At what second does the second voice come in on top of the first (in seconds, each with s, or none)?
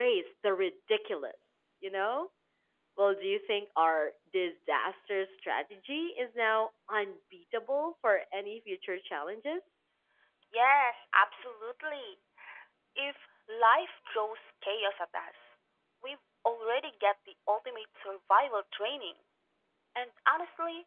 none